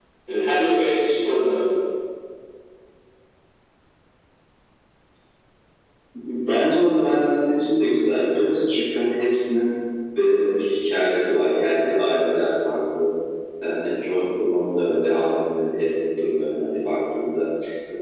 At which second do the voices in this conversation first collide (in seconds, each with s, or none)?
none